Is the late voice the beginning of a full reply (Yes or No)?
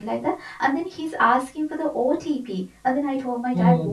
No